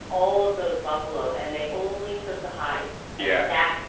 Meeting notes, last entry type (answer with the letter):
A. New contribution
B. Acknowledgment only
B